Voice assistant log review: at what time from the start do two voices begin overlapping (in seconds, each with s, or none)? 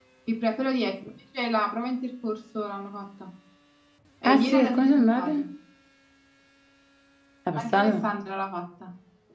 4.2 s